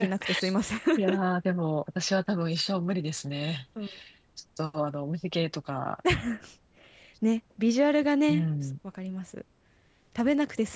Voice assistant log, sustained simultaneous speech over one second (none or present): none